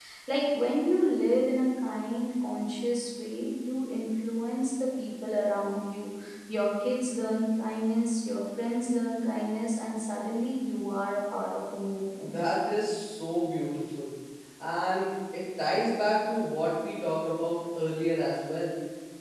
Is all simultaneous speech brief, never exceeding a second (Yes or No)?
Yes